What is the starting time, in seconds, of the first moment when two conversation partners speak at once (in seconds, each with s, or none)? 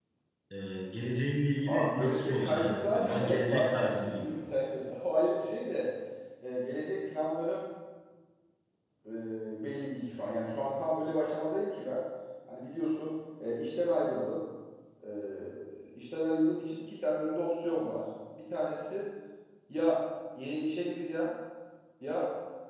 1.7 s